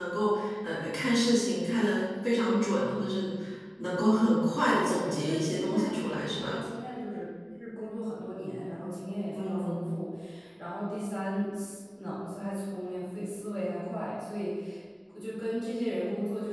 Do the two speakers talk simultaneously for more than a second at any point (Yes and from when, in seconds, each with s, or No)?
Yes, from 4.7 s